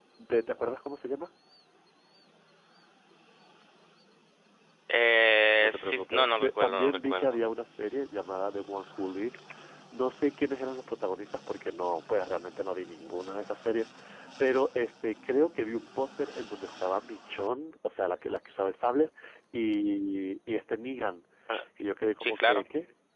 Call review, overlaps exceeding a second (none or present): present